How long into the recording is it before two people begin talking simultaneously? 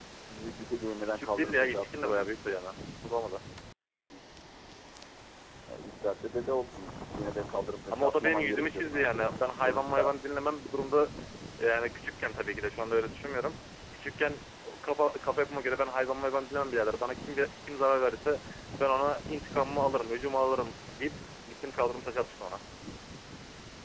1.0 s

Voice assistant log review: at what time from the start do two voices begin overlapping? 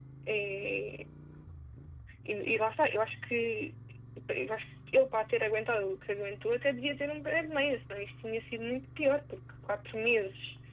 none

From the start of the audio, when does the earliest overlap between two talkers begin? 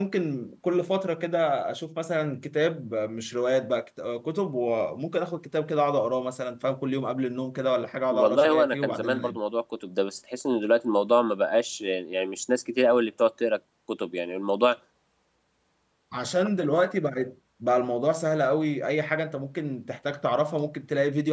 8.1 s

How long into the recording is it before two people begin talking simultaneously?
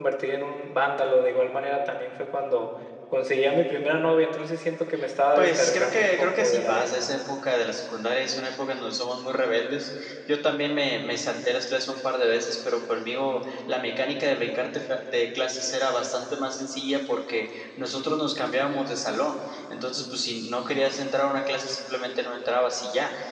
5.4 s

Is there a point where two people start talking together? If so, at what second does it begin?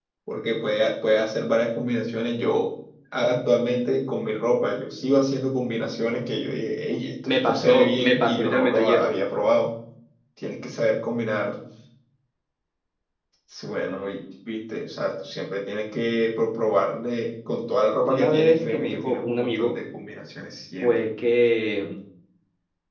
7.2 s

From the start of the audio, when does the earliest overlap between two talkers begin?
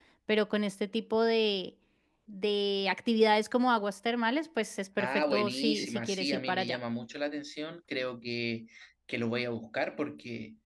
5.0 s

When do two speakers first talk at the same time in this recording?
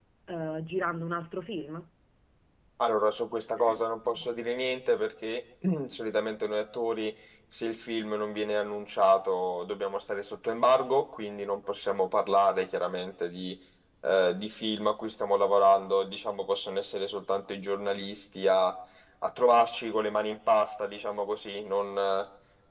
none

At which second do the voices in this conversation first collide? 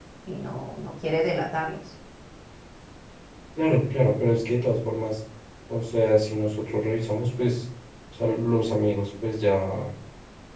none

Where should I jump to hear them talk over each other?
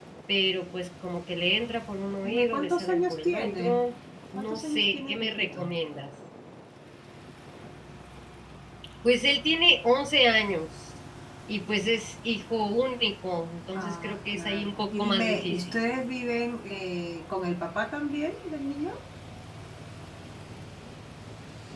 2.2 s

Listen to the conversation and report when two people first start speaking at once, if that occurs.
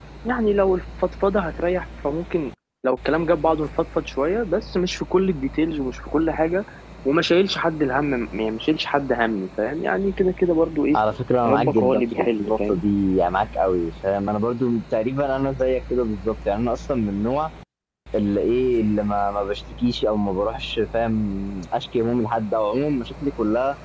11.5 s

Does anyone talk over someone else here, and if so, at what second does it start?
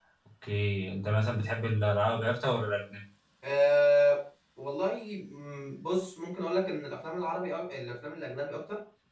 none

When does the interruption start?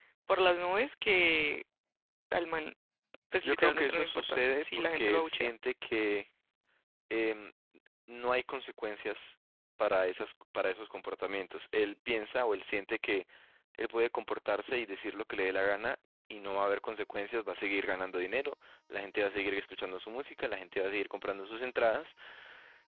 3.4 s

